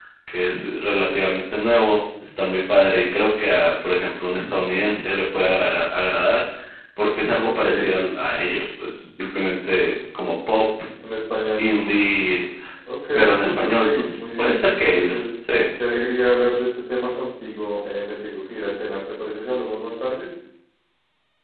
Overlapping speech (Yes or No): Yes